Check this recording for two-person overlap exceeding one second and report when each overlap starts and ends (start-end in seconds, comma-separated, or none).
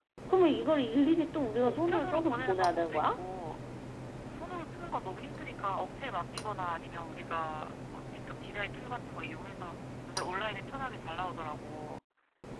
1.6-3.2